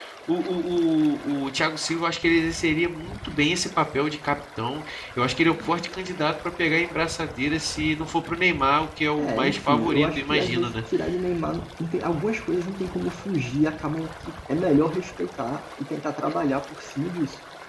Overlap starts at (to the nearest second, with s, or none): 9 s